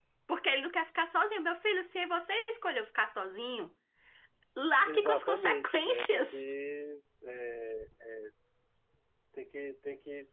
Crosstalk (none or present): present